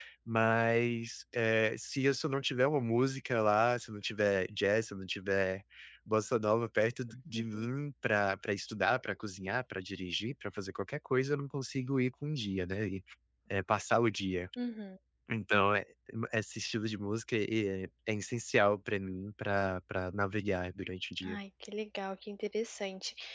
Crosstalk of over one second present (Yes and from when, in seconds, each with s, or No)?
No